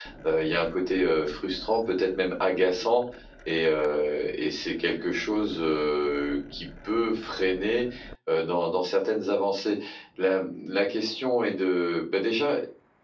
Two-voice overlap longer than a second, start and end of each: none

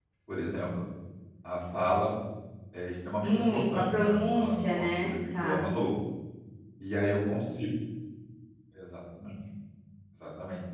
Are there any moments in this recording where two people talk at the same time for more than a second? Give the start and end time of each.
3.2-5.6

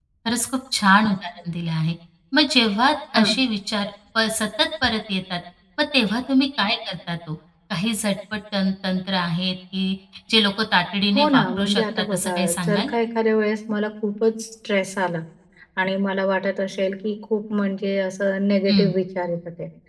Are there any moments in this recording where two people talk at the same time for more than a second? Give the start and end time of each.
11.2-12.9

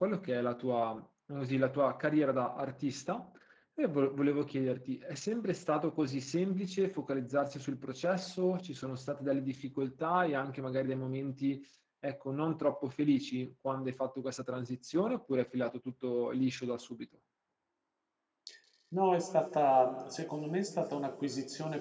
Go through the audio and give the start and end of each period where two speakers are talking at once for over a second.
none

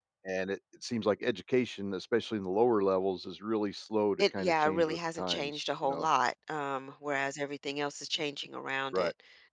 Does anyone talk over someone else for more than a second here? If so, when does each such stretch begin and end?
4.2-6.1

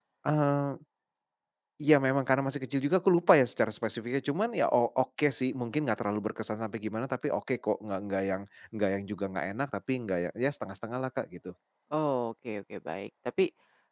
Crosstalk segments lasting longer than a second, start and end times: none

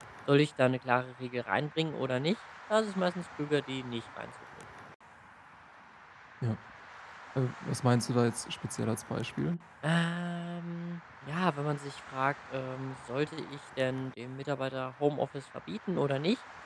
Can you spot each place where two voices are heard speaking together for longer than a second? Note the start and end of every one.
none

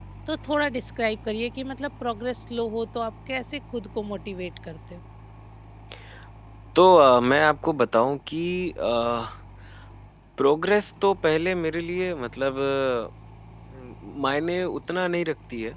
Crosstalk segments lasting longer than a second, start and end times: none

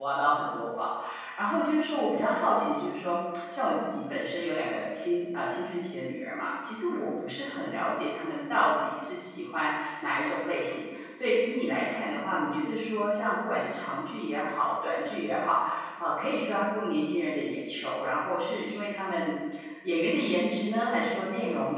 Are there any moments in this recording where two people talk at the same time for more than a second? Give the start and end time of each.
none

